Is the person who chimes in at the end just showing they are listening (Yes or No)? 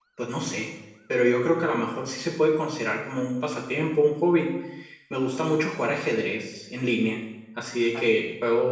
Yes